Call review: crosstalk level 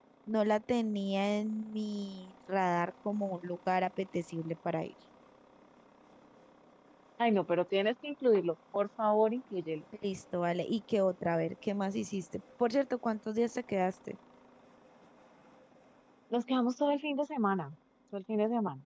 none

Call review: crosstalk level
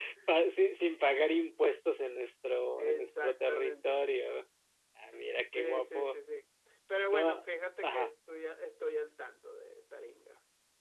present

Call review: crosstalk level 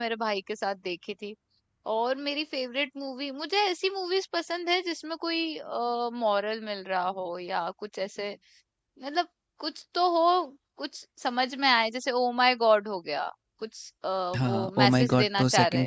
present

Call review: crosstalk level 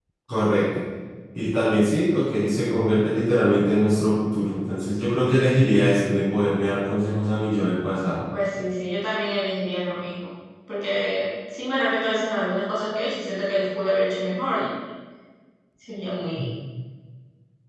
none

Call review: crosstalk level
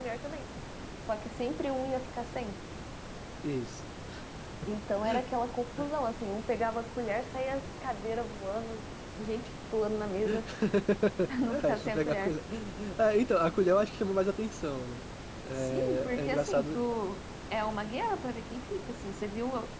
present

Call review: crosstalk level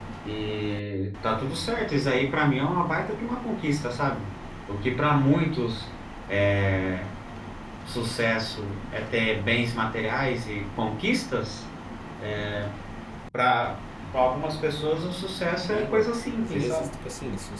present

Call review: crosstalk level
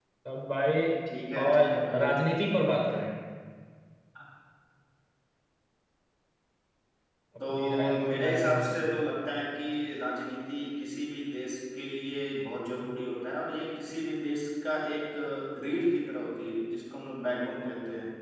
present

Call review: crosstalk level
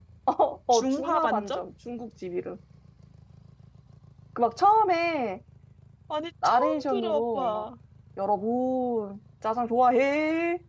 present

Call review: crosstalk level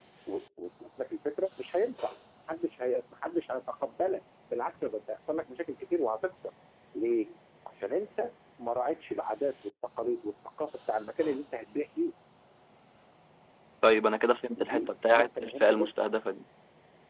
present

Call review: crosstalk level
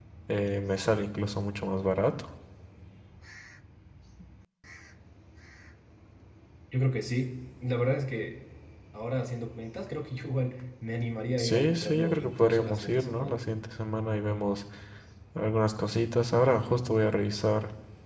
present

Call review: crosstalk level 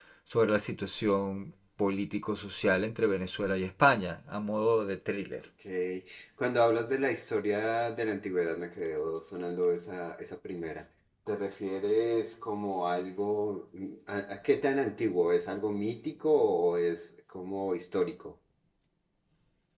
none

